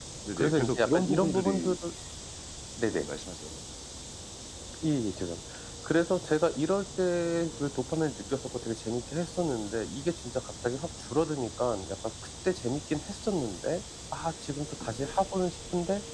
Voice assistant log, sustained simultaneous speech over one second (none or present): present